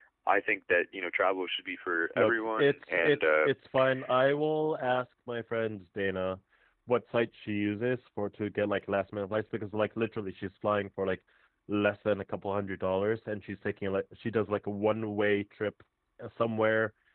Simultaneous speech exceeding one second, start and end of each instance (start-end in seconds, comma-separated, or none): 2.2-3.5